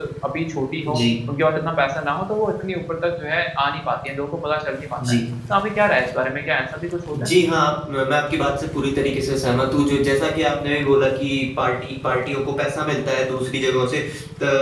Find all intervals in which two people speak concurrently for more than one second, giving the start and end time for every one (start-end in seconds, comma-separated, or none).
none